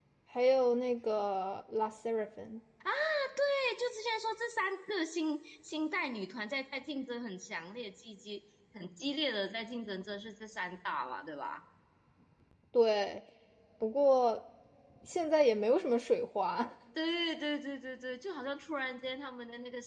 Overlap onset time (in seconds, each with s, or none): none